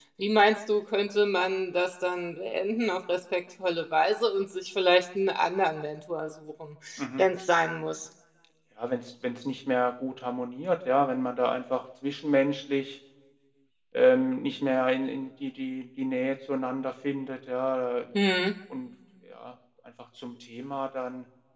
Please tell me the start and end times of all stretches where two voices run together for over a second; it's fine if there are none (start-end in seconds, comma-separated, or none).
none